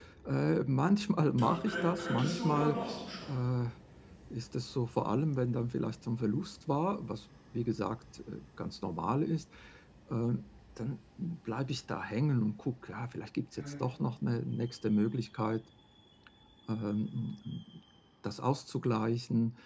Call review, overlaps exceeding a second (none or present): present